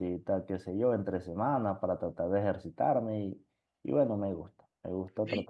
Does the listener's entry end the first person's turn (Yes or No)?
Yes